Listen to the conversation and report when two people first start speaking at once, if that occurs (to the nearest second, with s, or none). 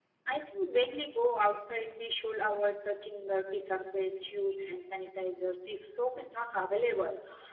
none